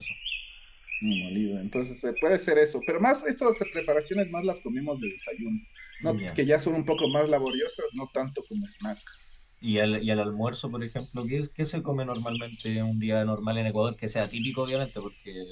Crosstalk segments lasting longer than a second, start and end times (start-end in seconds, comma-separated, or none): none